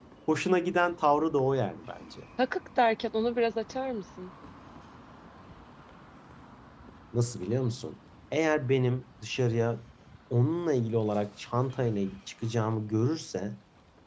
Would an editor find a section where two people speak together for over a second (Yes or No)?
No